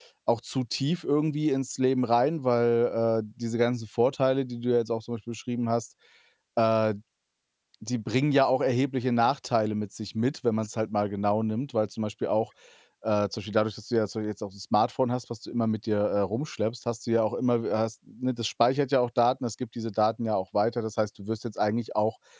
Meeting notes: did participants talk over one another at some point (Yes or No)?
No